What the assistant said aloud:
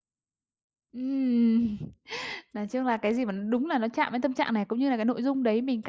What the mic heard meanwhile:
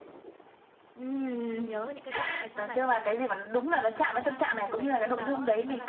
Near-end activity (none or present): present